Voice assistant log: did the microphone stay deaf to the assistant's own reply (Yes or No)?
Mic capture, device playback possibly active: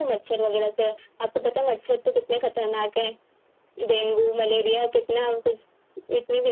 No